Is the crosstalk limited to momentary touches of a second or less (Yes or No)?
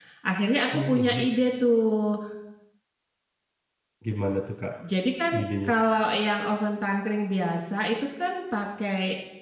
Yes